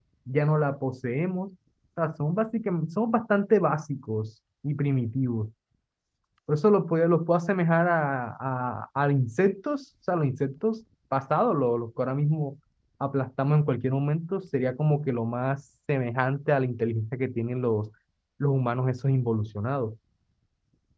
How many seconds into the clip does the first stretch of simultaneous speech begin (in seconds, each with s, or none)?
none